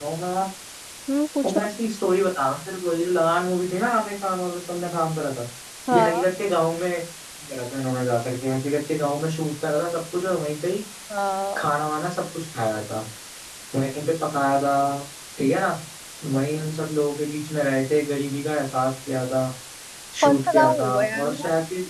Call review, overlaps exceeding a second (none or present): present